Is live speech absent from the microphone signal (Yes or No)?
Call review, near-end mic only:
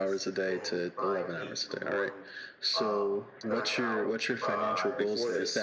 No